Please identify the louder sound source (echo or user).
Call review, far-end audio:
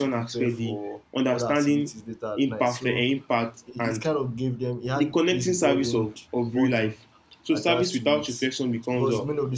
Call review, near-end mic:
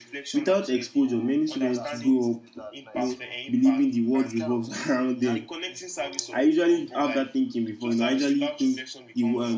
user